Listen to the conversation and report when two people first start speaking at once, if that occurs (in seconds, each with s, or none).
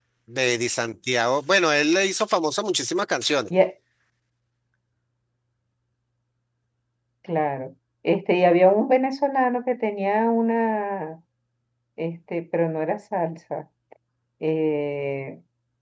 none